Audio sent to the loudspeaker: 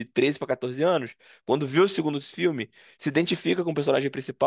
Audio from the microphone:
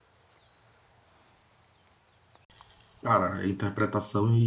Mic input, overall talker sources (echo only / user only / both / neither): user only